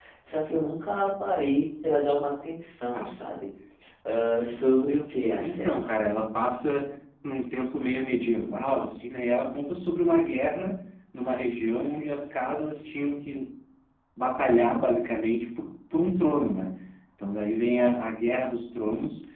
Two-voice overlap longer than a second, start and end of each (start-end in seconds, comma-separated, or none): none